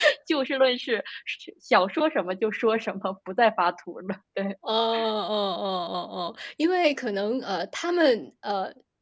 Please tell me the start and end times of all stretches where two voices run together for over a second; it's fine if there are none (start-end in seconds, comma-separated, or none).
none